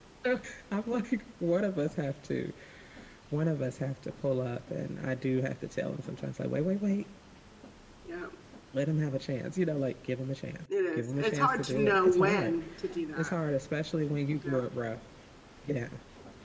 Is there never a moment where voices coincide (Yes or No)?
No